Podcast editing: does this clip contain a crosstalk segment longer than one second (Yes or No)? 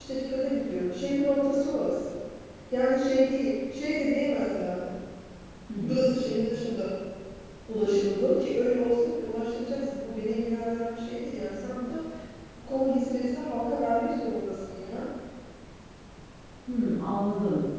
No